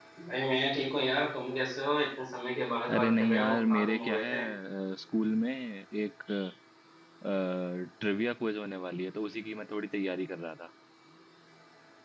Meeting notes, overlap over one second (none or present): present